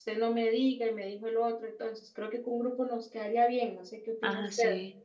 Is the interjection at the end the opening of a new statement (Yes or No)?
Yes